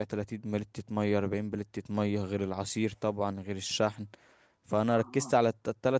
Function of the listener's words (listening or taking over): listening